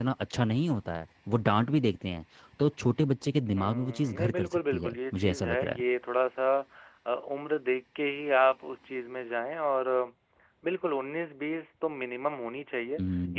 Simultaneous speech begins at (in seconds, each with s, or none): 3.5 s